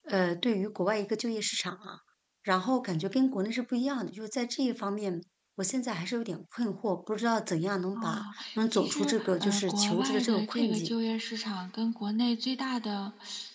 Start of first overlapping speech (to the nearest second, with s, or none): 8 s